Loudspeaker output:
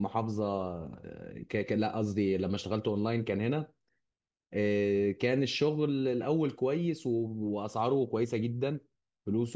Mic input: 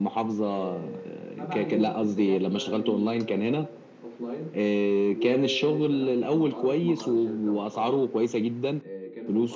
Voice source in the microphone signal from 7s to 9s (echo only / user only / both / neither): both